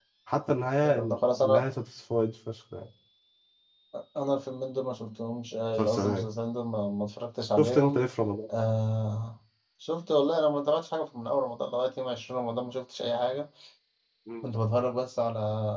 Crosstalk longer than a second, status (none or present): none